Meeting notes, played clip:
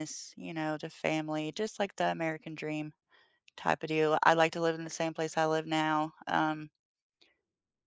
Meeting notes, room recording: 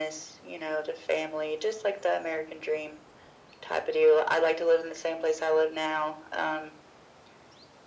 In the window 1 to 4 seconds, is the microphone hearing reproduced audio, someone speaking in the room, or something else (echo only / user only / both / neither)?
echo only